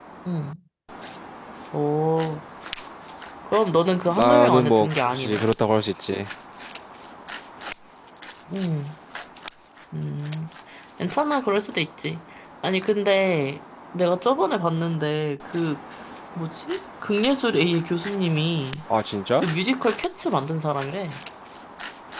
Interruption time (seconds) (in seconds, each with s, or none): 4.2 s